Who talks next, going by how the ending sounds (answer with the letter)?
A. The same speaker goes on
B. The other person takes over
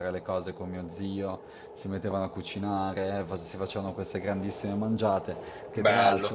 A